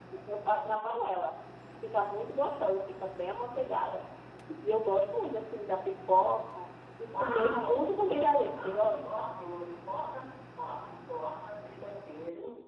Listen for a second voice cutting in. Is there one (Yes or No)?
Yes